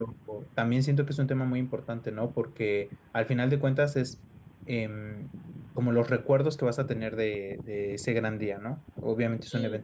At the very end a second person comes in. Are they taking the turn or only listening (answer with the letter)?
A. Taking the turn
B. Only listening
B